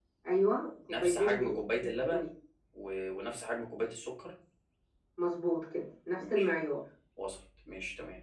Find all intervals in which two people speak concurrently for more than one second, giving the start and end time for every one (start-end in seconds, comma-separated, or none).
0.9-2.3